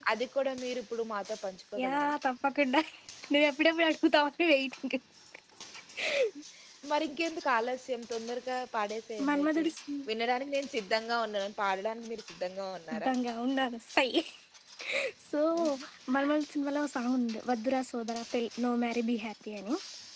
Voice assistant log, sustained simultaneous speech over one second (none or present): none